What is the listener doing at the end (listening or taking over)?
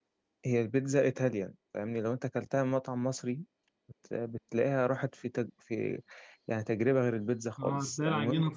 taking over